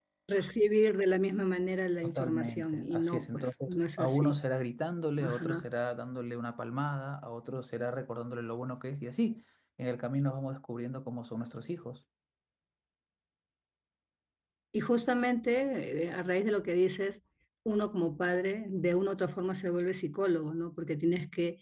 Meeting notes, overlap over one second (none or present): present